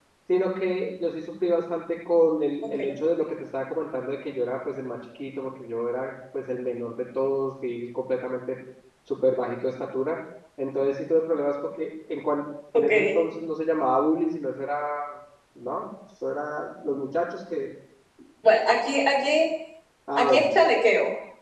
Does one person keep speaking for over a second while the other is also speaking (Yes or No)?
No